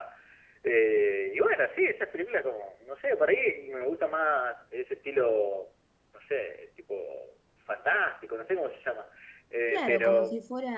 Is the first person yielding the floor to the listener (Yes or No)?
Yes